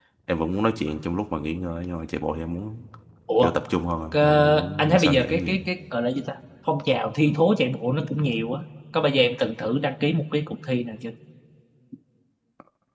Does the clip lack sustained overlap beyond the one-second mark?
No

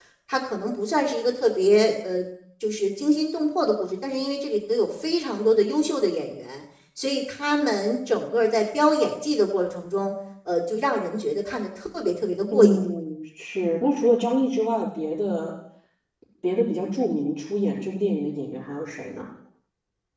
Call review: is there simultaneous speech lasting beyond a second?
No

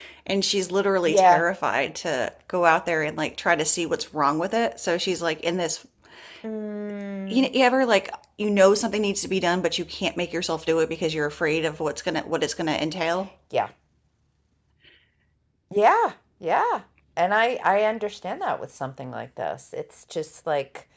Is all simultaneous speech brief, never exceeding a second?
Yes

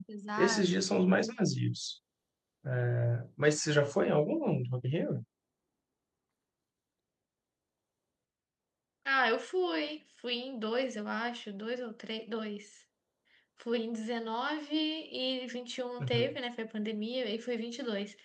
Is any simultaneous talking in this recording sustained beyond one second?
No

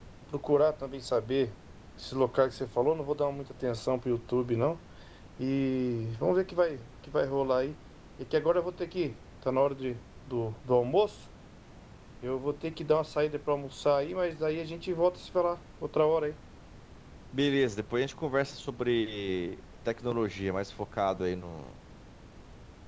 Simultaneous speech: No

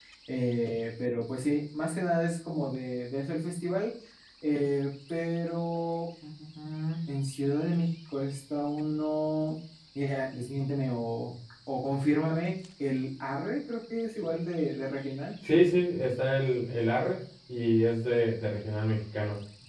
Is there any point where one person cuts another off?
No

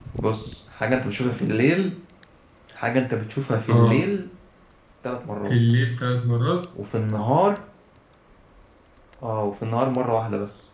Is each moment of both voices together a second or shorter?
Yes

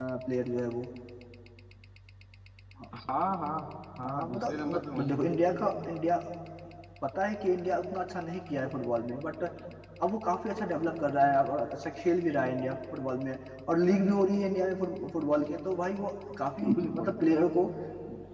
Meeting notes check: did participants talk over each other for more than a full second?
Yes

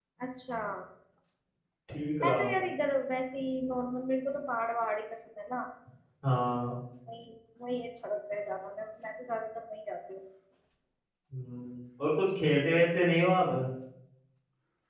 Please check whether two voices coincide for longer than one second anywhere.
No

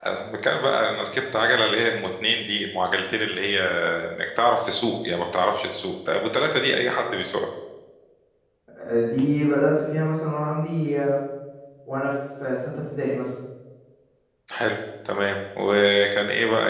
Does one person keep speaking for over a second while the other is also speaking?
No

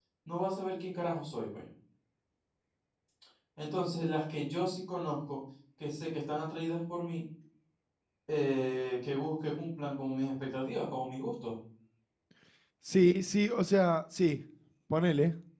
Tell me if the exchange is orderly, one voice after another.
Yes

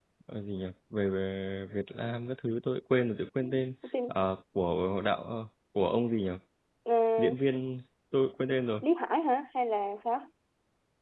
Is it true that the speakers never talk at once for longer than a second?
Yes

